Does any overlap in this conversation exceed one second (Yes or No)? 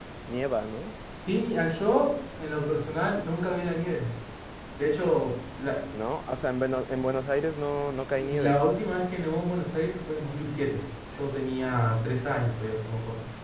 No